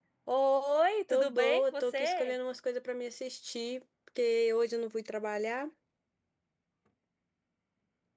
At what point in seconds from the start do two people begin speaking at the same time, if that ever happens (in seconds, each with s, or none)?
1.1 s